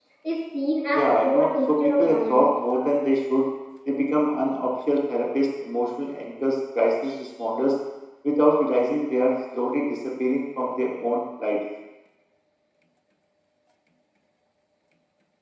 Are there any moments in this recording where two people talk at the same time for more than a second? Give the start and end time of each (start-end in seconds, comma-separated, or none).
0.9-2.4